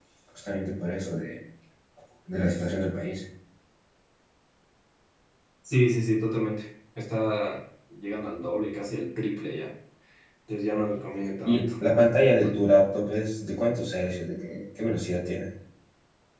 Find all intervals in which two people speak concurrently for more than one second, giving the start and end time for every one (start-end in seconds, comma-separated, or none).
none